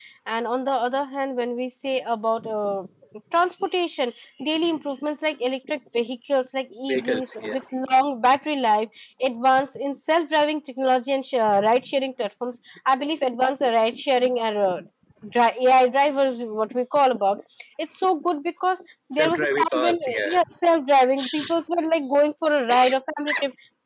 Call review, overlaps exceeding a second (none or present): present